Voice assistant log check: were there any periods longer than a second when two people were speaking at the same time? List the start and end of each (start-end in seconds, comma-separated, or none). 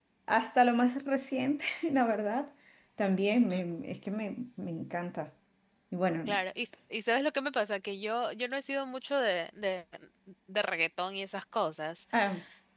none